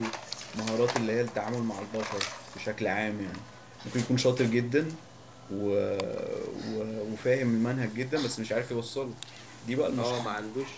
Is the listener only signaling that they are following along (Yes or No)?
No